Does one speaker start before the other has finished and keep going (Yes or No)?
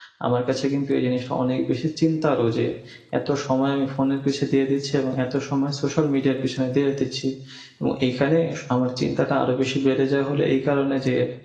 No